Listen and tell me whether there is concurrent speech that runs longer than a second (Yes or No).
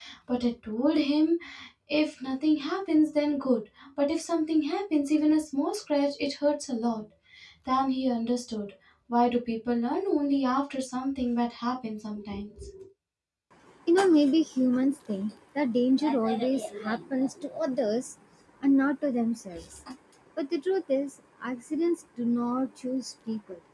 No